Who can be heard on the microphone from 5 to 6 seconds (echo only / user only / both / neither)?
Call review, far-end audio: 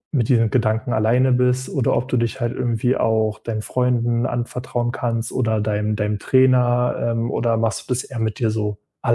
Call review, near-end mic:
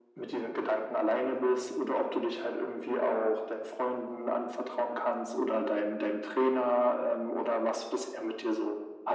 echo only